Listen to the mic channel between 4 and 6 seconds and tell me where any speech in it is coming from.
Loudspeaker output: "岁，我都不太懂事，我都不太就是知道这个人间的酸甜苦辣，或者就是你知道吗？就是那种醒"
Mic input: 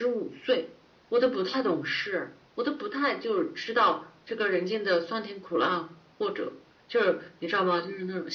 echo only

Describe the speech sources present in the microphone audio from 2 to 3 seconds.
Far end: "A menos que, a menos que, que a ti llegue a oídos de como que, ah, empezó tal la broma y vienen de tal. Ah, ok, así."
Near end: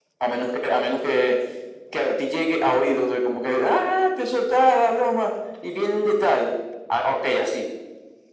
echo only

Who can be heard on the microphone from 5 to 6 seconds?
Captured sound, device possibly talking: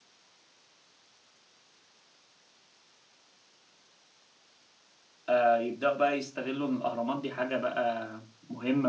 user only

